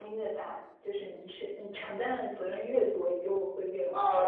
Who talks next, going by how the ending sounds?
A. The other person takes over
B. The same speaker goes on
A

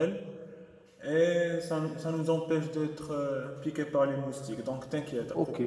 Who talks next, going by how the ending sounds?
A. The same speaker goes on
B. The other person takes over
B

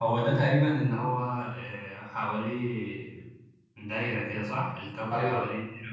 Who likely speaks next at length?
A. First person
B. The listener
A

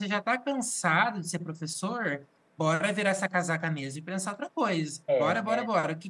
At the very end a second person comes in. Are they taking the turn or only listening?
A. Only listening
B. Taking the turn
B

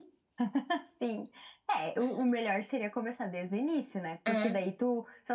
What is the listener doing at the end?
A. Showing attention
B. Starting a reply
A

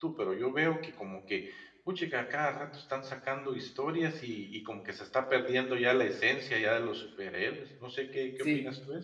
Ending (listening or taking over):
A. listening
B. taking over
B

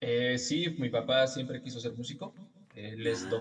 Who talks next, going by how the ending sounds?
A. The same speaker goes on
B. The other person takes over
A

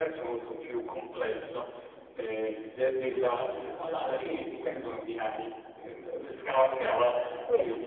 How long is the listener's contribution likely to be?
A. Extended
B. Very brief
B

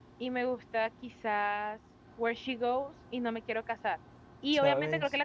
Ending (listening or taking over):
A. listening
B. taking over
A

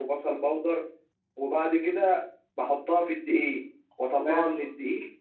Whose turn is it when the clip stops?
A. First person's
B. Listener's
A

